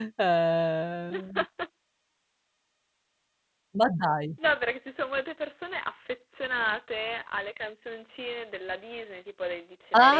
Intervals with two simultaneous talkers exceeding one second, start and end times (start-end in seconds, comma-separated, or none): none